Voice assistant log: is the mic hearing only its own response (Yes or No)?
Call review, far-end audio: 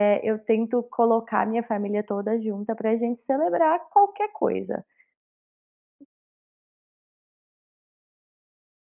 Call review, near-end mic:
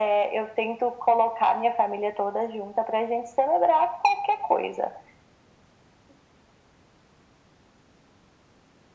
Yes